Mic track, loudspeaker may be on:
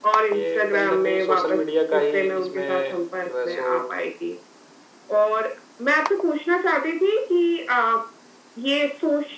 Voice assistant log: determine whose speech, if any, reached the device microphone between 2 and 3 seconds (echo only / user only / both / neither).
both